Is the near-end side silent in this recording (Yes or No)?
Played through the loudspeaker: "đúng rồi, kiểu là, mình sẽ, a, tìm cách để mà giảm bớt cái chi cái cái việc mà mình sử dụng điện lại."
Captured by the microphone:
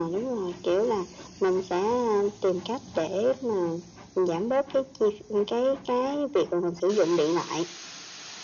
Yes